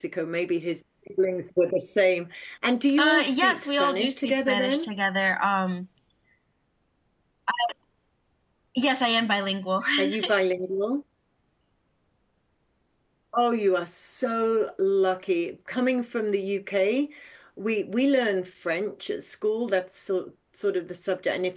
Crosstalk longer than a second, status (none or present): present